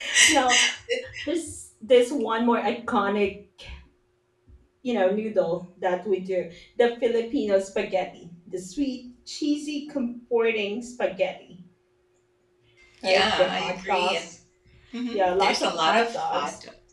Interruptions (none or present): present